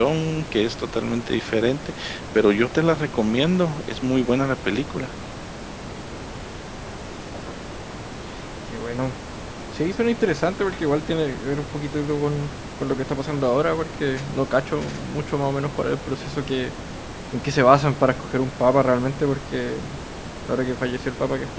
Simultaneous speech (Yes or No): No